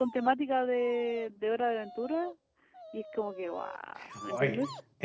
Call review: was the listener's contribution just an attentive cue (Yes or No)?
No